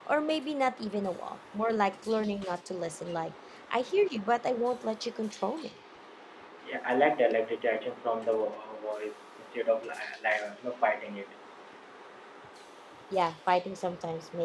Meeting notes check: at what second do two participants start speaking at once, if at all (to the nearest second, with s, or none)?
none